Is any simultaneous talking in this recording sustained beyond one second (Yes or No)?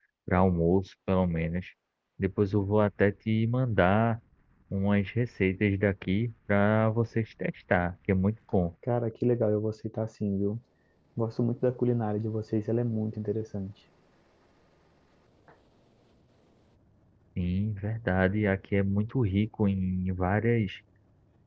No